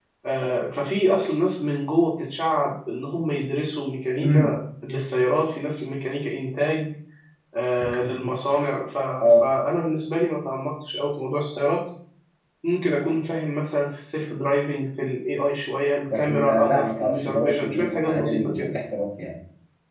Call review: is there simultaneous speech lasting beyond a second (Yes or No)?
Yes